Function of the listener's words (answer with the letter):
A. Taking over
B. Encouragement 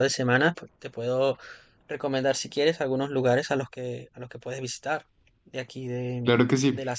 A